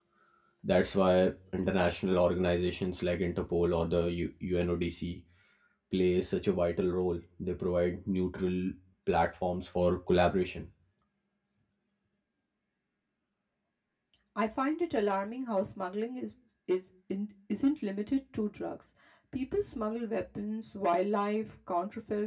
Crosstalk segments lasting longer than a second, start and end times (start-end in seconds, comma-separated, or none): none